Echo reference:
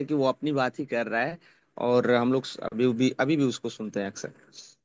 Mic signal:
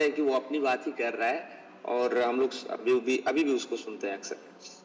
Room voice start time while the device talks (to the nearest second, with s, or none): none